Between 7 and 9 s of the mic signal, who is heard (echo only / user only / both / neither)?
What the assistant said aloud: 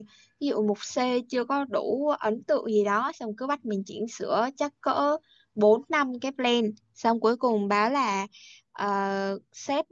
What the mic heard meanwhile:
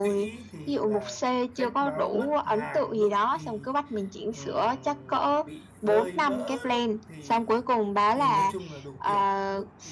both